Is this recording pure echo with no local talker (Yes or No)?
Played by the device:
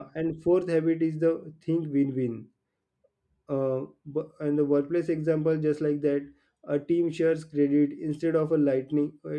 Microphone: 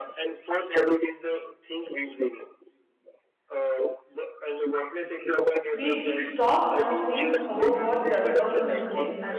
No